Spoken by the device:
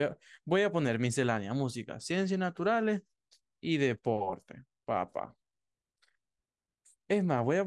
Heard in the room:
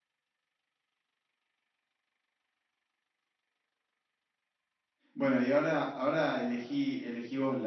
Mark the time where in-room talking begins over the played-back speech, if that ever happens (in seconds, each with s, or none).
5.1 s